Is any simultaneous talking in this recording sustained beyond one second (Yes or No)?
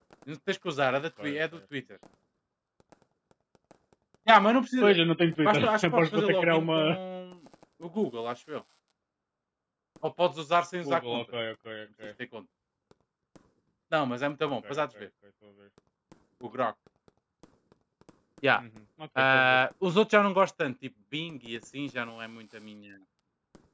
Yes